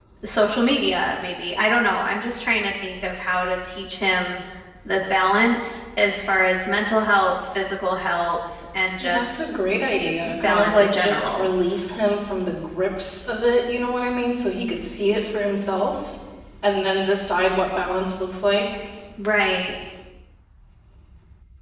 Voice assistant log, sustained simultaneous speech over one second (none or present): present